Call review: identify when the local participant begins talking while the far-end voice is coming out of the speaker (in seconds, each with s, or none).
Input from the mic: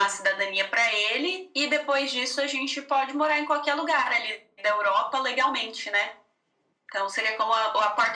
none